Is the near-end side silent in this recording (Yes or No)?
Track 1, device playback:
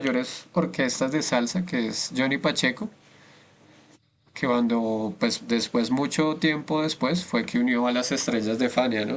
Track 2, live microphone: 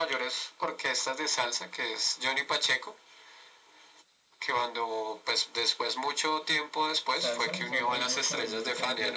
No